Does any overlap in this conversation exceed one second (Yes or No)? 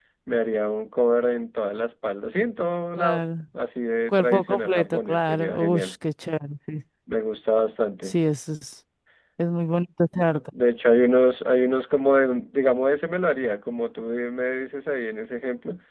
Yes